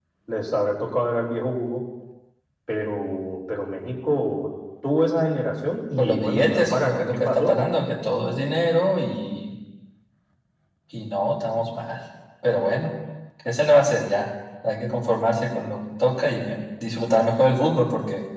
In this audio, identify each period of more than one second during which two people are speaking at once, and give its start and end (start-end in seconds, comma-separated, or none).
6.0-7.5